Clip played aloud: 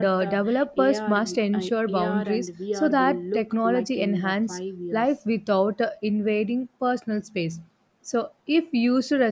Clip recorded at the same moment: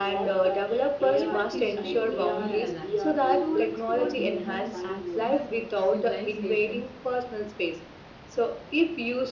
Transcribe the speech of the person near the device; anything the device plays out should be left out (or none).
Even history would feel alive. Students could witness accident, civilizations,